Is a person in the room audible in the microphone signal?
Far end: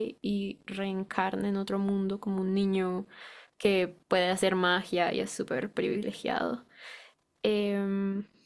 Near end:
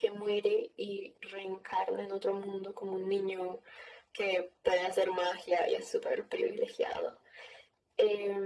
No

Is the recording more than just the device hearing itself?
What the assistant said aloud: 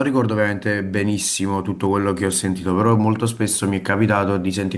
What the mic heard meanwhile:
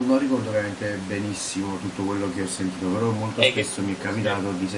Yes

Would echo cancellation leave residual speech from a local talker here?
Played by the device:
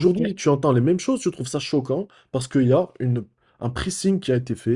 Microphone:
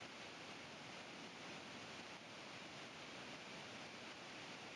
No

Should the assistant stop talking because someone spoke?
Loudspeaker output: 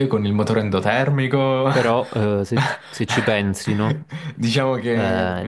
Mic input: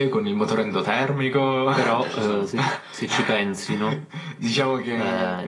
Yes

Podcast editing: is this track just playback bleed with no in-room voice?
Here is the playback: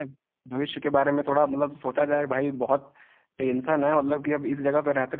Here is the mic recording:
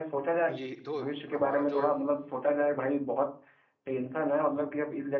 No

